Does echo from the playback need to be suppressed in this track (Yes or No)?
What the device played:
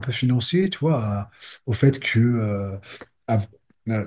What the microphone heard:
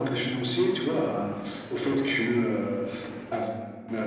Yes